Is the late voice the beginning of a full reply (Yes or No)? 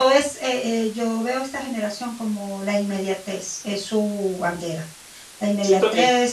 No